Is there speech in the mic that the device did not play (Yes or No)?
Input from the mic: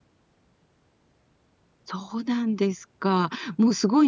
Yes